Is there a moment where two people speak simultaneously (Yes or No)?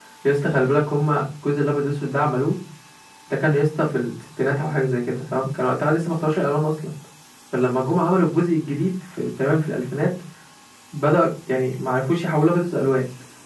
No